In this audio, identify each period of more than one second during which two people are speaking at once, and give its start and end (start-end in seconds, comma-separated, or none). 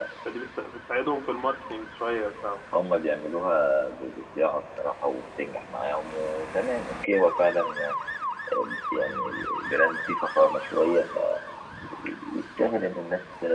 none